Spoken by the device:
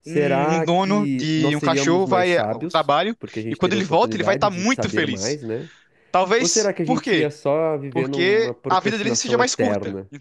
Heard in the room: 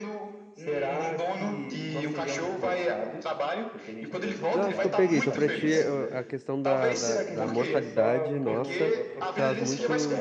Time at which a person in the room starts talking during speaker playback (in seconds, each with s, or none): 4.5 s